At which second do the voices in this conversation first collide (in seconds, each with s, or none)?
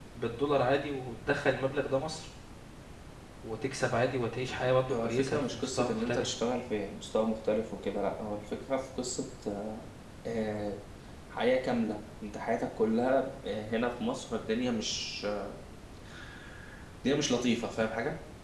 4.8 s